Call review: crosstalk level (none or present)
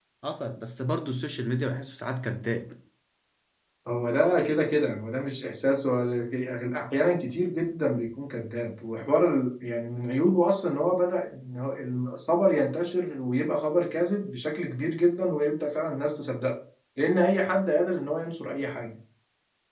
none